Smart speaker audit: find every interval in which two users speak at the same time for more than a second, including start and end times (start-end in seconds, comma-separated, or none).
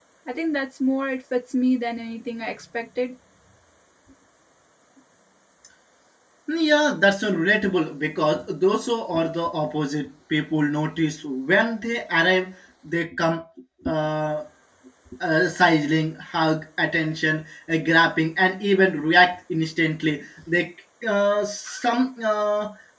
none